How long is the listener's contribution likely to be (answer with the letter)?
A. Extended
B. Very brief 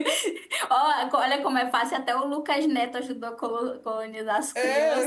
A